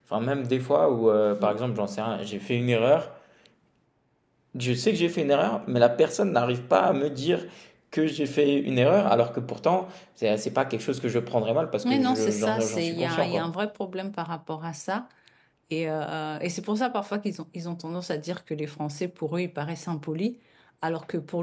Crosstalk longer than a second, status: present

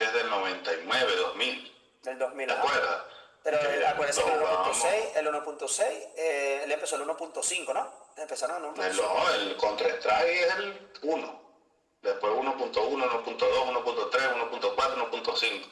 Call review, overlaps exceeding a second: present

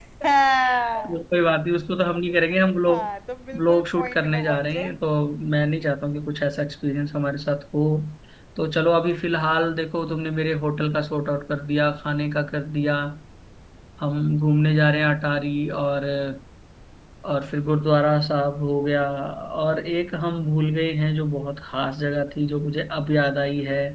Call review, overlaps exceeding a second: present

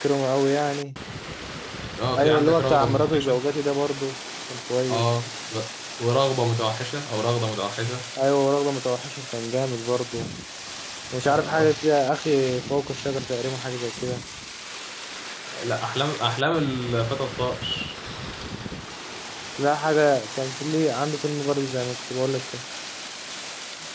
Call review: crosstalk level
present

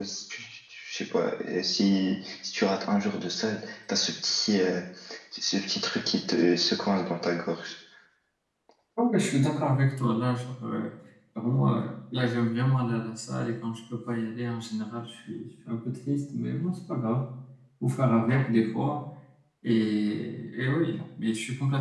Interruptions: none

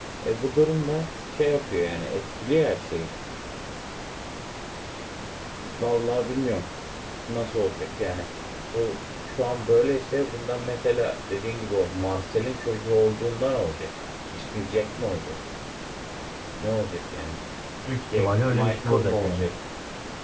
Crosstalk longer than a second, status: present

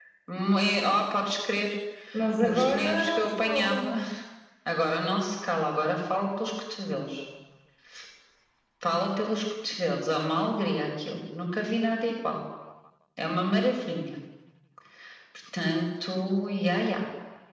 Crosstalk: present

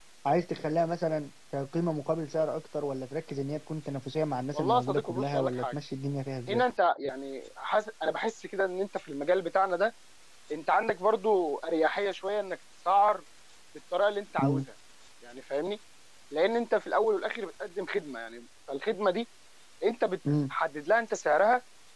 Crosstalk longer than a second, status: present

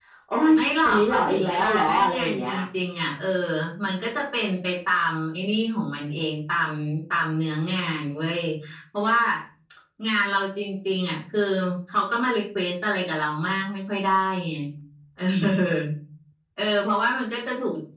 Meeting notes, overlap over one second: present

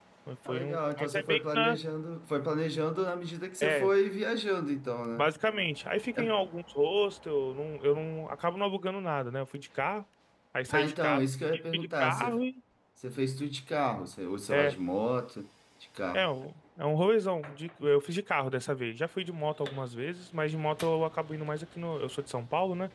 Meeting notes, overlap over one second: present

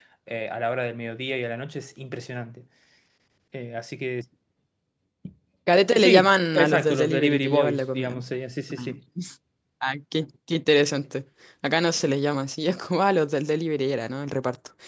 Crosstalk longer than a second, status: present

